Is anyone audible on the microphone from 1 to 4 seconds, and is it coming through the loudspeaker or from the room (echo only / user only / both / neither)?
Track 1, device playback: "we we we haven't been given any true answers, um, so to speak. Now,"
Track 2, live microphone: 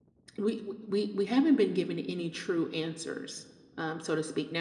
echo only